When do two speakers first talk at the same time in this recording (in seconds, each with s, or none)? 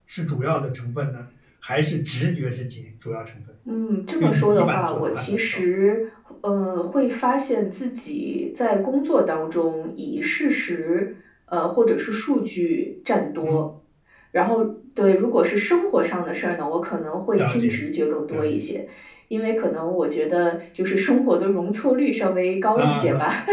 4.2 s